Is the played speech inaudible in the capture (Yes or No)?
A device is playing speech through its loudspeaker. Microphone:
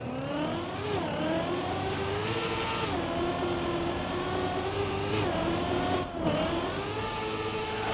Yes